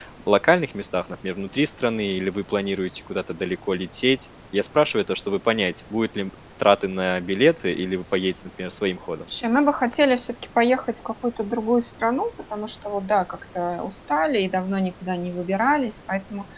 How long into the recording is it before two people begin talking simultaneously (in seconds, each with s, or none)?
none